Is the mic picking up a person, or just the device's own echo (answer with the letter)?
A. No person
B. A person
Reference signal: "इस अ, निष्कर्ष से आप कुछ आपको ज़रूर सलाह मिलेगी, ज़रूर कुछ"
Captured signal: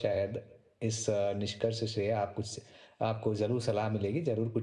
A